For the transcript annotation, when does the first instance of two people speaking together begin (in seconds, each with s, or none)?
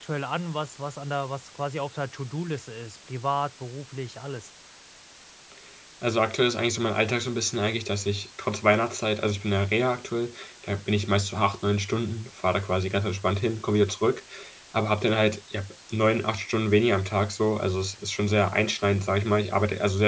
none